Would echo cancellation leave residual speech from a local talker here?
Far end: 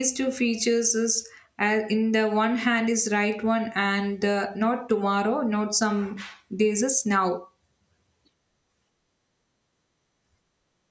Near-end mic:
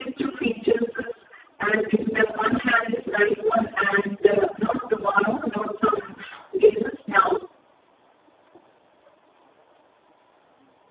No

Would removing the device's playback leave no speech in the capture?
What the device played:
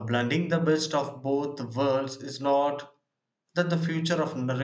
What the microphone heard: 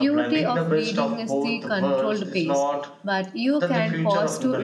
No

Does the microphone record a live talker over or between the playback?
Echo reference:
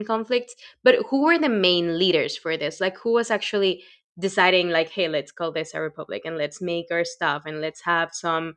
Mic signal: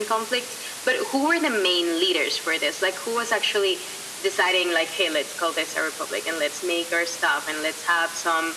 No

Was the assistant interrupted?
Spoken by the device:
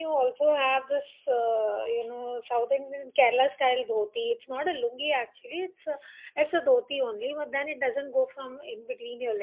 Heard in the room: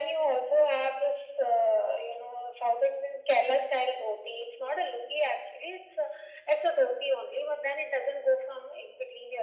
No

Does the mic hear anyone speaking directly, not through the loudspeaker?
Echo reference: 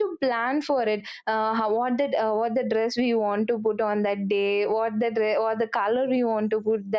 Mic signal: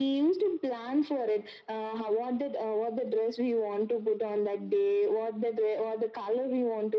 No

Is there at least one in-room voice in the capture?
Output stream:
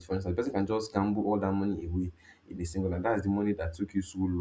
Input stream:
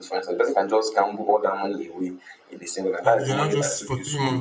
Yes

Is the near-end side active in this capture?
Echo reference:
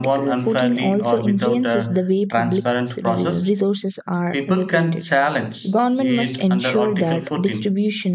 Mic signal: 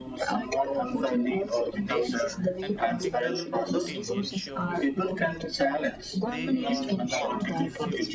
Yes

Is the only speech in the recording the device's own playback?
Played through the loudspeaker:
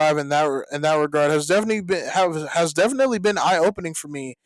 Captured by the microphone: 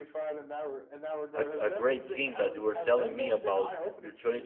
No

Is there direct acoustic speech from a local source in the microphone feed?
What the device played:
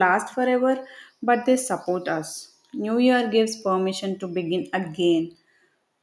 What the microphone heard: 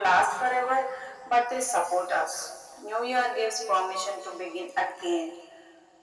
No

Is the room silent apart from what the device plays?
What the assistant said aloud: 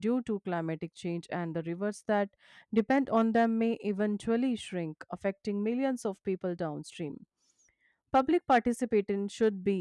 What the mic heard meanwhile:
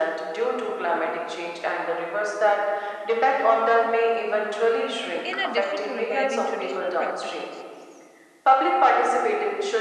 No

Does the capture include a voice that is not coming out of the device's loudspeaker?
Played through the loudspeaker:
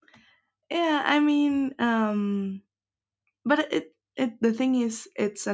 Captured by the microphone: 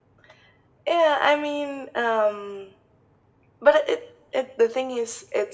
No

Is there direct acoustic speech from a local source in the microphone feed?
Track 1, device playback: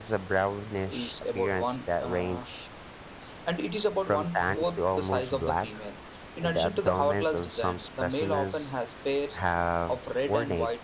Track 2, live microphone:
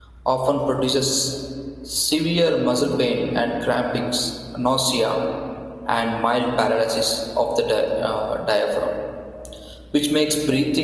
Yes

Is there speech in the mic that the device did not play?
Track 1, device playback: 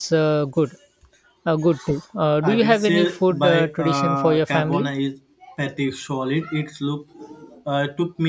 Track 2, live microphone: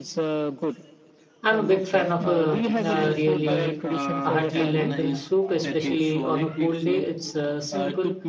Yes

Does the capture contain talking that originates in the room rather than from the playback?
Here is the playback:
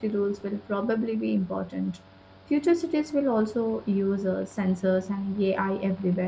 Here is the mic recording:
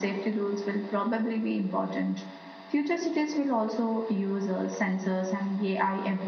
No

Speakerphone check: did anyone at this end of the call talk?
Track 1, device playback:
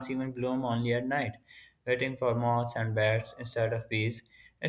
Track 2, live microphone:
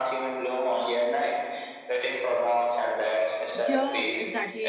Yes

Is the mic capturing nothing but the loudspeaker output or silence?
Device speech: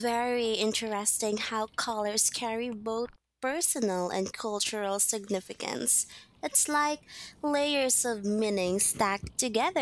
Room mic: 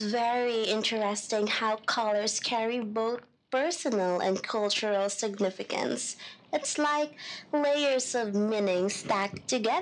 Yes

